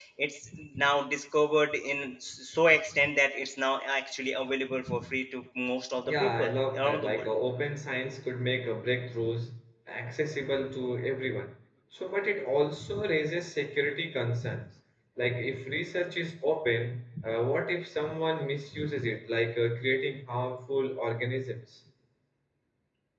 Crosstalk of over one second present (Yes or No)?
Yes